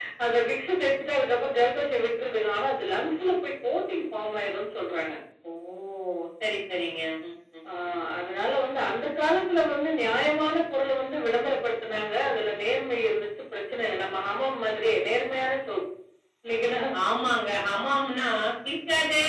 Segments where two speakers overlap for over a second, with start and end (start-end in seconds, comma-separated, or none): none